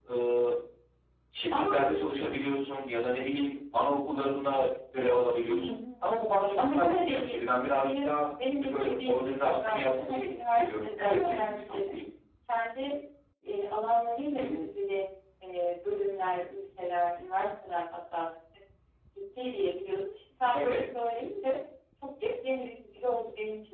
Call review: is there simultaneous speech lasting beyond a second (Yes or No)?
Yes